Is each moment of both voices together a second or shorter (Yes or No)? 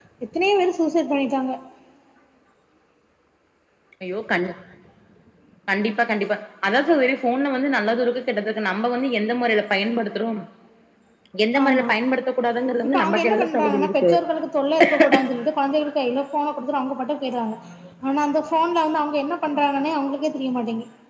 No